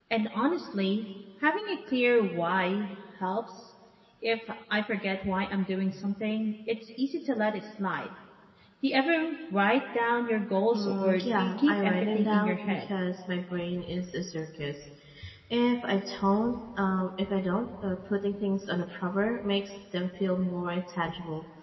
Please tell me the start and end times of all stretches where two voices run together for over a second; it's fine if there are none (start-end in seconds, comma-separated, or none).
10.7-12.8